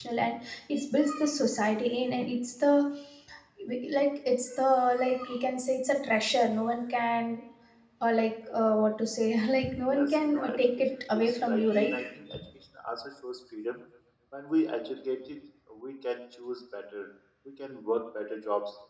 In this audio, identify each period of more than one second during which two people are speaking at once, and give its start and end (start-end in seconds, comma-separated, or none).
9.9-11.9